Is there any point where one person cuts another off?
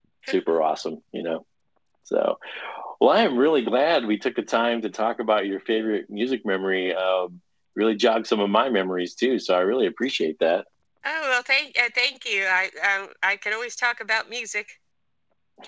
No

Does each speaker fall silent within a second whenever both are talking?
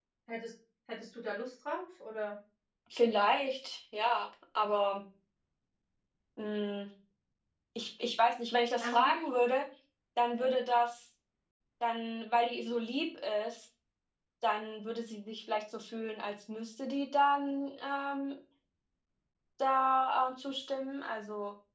Yes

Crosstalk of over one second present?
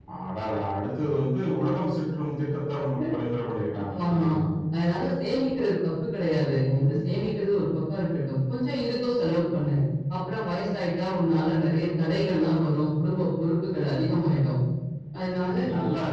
No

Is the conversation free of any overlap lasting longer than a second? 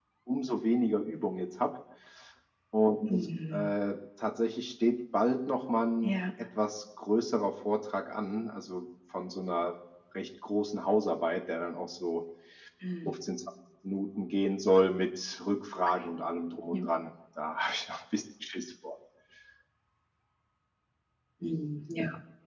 Yes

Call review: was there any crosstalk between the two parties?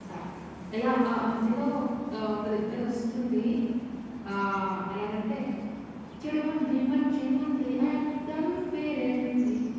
No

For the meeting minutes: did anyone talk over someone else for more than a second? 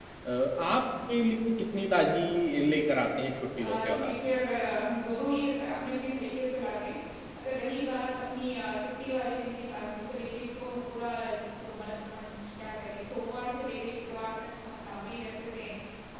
No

